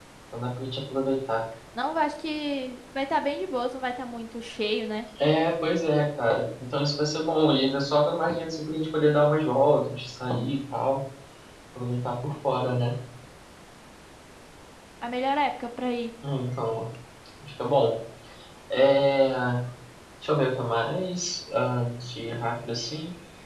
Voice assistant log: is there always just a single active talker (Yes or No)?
Yes